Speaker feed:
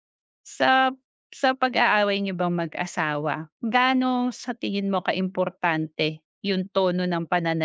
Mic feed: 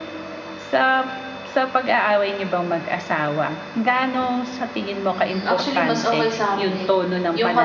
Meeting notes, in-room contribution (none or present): present